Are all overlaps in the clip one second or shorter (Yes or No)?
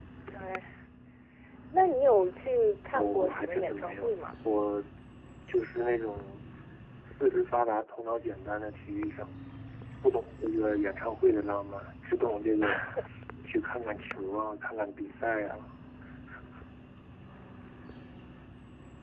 No